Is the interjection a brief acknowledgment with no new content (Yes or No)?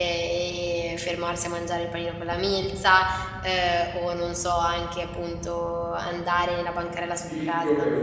No